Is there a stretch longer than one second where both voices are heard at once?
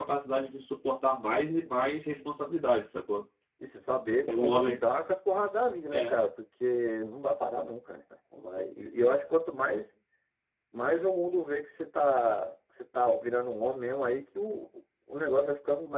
No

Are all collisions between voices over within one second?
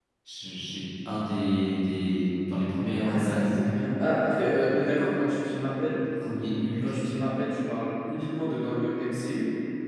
Yes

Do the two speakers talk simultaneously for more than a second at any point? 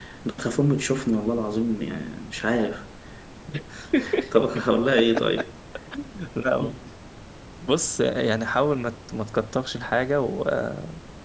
No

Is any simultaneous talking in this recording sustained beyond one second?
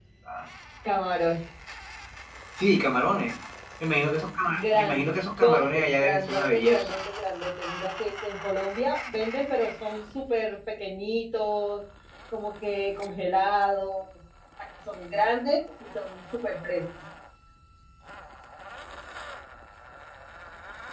Yes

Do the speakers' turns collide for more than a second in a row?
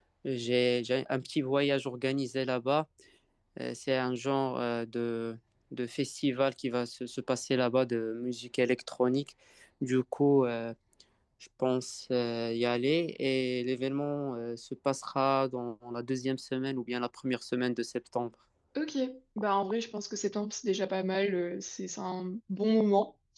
No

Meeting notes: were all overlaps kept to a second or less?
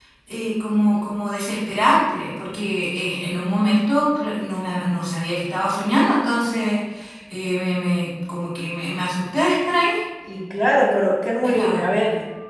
Yes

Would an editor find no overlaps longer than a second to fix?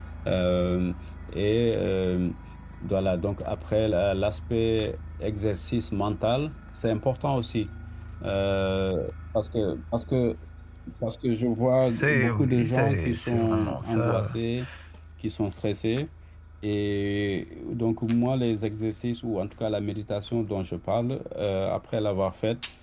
No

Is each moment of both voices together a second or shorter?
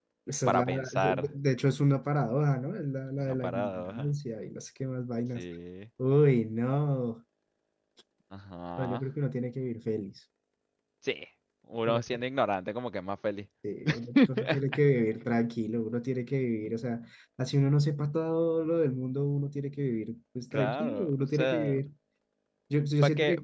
No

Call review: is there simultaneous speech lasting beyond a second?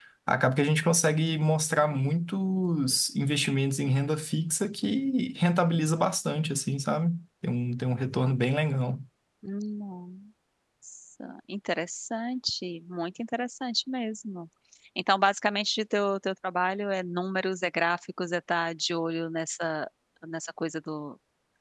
No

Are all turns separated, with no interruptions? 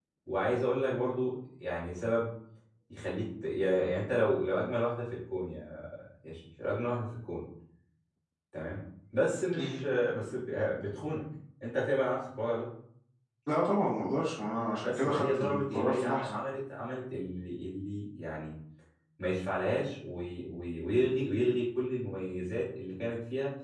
No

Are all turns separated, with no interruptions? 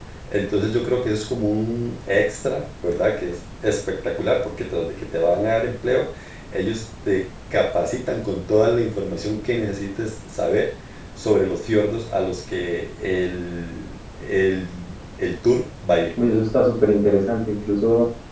Yes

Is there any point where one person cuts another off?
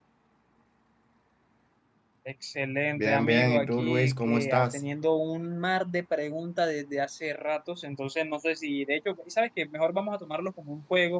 Yes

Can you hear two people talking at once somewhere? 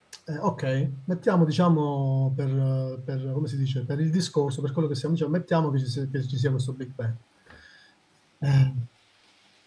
No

